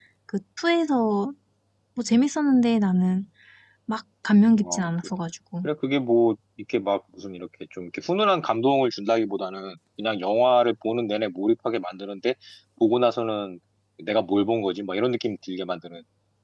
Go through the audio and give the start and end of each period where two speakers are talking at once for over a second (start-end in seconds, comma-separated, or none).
none